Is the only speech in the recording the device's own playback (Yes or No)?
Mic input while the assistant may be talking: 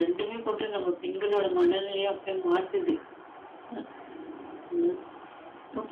Yes